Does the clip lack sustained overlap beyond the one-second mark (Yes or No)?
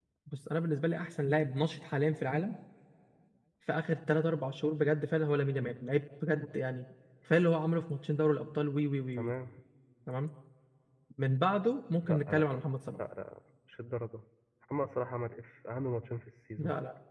Yes